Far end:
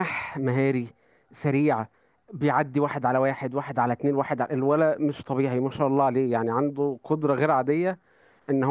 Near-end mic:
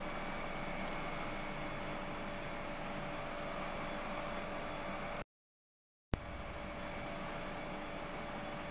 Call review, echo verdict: none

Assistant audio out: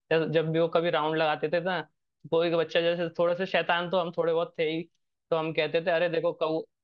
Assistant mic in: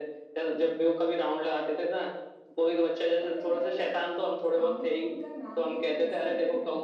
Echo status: present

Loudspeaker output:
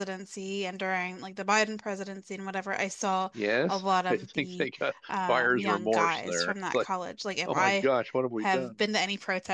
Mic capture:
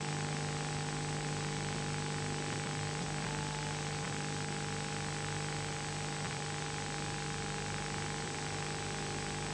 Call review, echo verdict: none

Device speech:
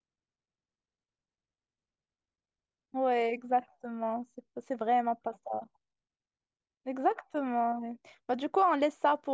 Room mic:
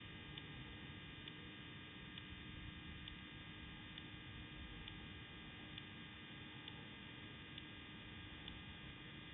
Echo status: none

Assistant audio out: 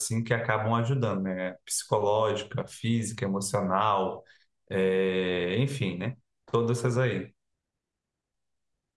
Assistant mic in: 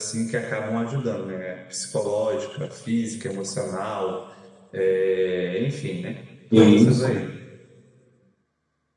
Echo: present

